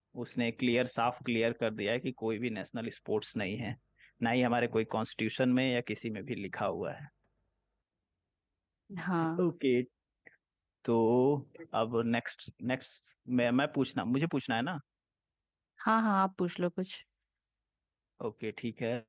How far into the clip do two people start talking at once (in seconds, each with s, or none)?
none